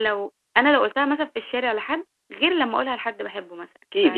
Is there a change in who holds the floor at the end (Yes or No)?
Yes